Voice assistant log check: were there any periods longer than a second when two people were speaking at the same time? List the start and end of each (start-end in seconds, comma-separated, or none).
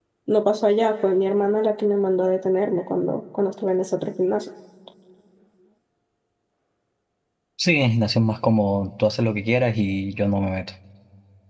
none